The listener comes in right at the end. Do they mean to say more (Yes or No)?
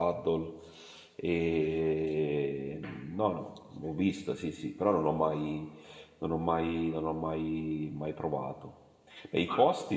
No